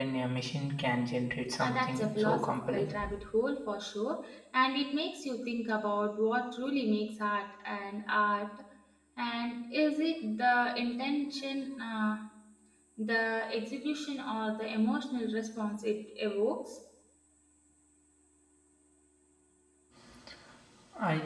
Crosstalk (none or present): present